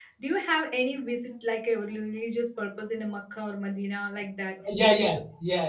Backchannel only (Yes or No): No